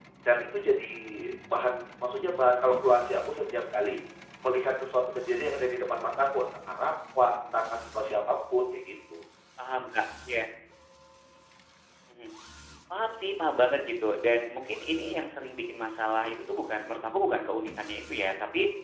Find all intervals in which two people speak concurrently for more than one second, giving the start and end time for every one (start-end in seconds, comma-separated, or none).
none